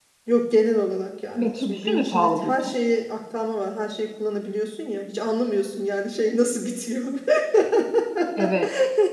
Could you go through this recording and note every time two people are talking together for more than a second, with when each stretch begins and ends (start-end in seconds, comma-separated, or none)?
1.4-2.7